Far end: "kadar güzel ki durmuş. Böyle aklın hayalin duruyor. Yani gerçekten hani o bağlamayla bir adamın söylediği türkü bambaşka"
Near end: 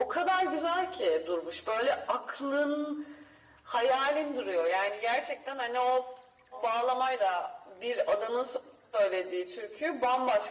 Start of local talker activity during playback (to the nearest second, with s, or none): none